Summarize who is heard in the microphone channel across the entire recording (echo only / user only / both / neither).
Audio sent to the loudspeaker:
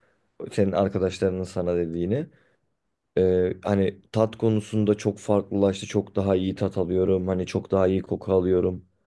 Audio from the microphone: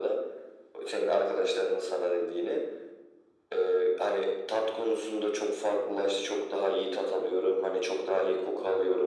echo only